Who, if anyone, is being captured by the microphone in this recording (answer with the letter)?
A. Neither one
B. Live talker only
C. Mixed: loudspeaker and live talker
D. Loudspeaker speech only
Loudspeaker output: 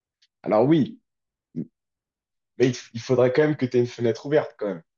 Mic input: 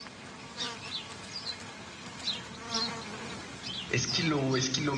B